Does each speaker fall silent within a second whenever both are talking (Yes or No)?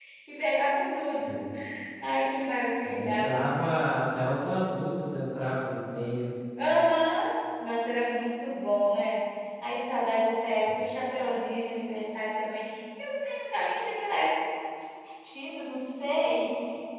Yes